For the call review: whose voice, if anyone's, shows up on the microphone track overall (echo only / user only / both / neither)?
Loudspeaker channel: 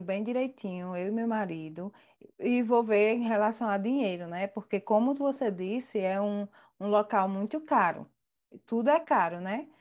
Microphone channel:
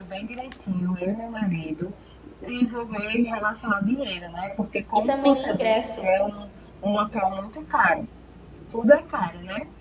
both